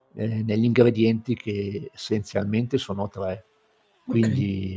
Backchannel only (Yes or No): Yes